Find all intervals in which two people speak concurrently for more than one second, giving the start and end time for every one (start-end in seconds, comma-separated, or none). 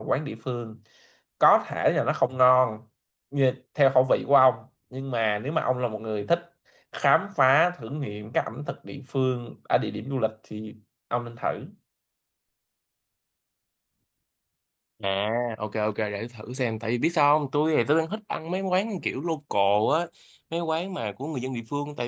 none